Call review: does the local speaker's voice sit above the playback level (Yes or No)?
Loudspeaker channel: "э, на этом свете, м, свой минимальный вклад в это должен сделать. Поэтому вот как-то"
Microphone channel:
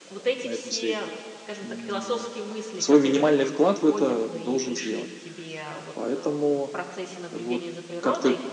No